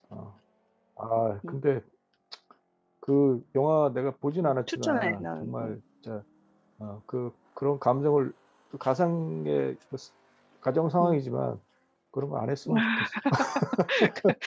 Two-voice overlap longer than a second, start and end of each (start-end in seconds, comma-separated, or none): 4.4-5.7